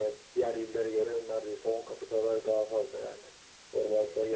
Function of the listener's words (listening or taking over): listening